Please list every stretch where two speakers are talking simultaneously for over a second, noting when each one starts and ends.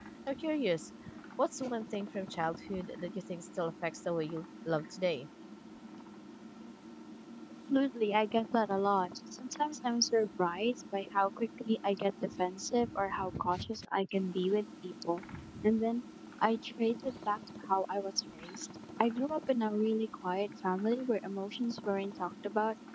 none

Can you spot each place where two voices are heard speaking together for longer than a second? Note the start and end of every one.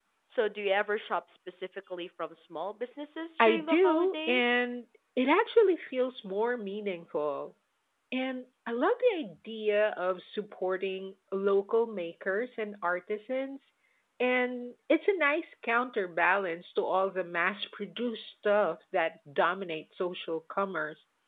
3.4-4.6

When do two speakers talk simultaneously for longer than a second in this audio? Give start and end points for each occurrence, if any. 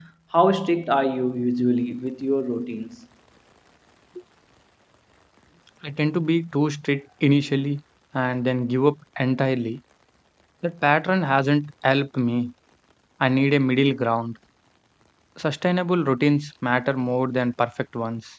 none

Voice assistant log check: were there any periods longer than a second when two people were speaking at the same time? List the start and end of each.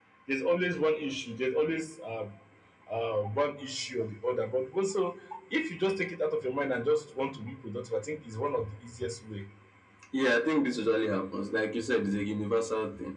none

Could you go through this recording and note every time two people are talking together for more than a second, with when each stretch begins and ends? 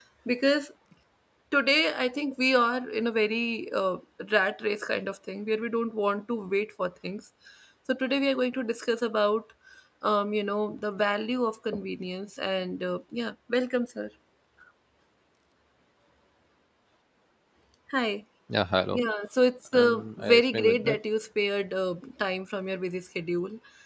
19.7-21.0

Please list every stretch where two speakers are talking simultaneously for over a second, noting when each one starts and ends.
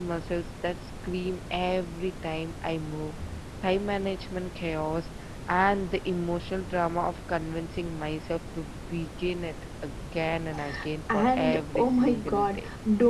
11.1-12.6

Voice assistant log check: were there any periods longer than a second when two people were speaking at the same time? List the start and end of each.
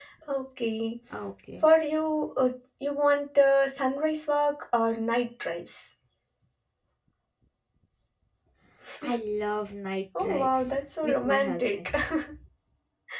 10.2-11.9

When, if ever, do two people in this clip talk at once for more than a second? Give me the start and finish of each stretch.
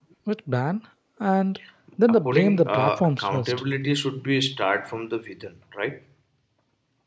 2.1-3.6

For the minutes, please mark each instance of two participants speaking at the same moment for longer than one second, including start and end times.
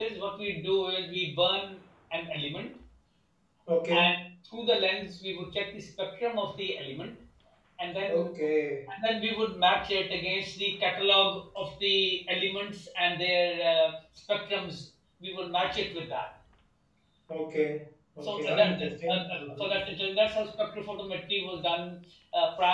18.2-19.6

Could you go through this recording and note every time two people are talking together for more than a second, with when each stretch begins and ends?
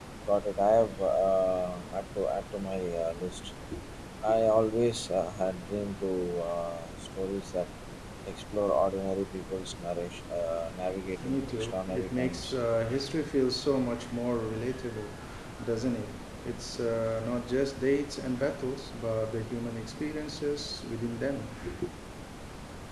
11.2-12.5

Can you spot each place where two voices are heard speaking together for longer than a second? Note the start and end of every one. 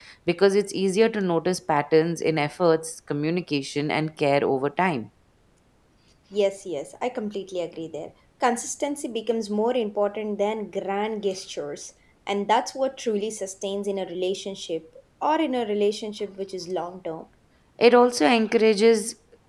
none

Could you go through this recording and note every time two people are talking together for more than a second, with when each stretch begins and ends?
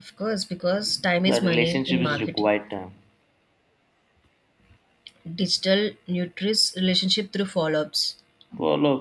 1.3-2.5

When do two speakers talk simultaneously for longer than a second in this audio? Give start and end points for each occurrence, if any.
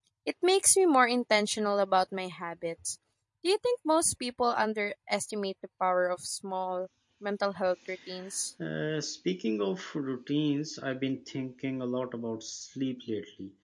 none

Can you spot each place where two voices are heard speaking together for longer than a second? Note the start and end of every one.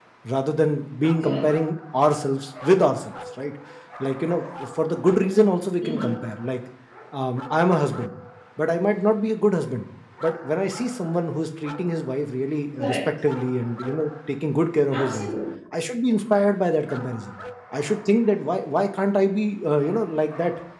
none

